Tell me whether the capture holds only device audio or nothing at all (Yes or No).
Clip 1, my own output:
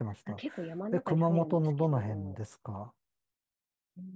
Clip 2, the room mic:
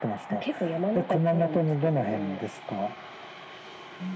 Yes